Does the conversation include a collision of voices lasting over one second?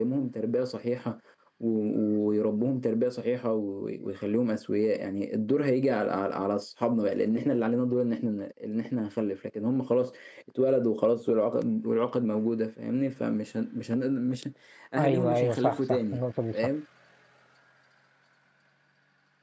Yes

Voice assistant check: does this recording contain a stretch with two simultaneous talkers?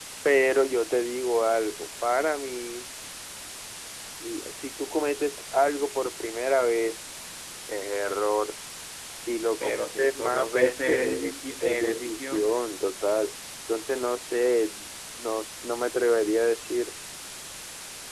Yes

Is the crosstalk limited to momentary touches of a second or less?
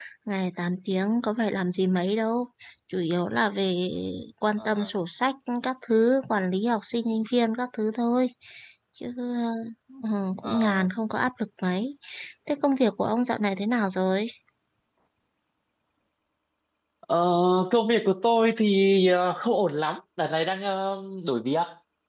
Yes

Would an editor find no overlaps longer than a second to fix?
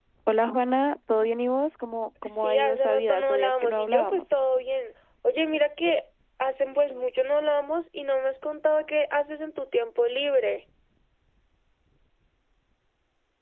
No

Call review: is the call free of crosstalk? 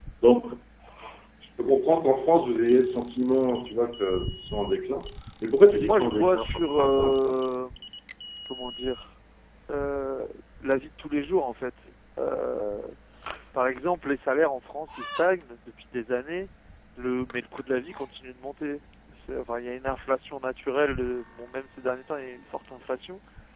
No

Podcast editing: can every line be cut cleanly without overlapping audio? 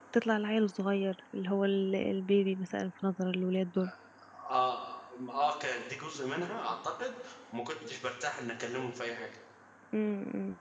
Yes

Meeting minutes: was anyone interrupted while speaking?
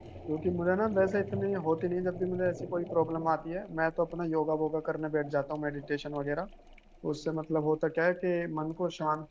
No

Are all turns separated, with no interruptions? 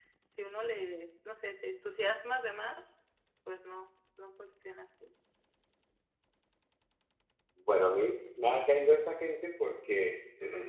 Yes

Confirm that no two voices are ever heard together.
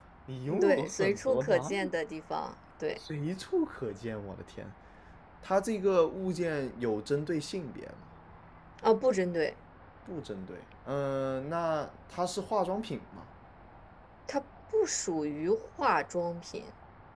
No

